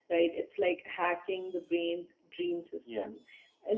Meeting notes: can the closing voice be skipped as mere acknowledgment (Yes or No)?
Yes